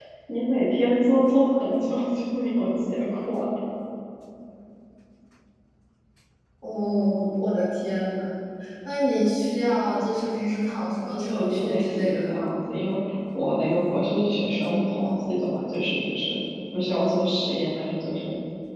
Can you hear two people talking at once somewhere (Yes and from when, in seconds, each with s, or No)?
Yes, from 11.0 s